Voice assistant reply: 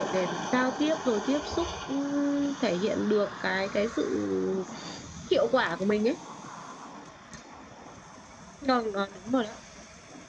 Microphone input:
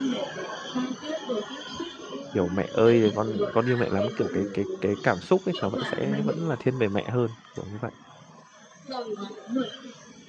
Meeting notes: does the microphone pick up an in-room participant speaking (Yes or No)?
Yes